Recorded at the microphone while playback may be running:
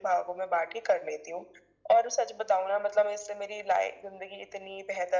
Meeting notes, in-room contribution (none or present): none